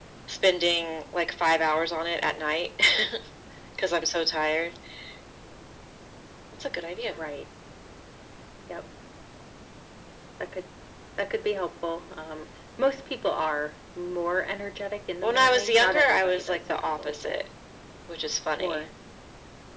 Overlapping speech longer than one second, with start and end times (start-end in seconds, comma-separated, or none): 15.2-17.3